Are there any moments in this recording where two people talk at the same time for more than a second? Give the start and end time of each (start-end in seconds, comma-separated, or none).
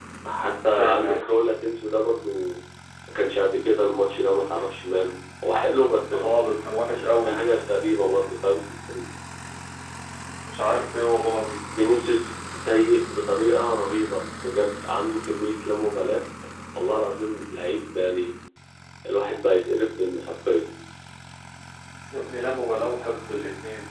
none